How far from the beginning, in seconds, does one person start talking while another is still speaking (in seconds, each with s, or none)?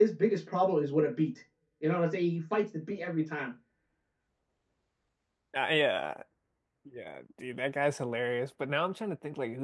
none